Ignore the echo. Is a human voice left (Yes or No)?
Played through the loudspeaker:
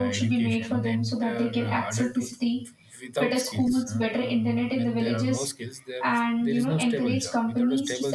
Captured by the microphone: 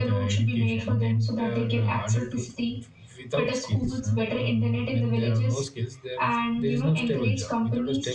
No